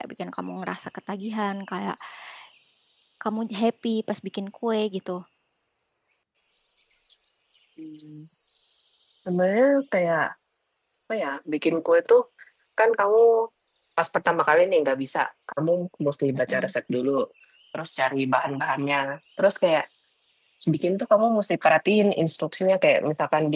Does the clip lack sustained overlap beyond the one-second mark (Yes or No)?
Yes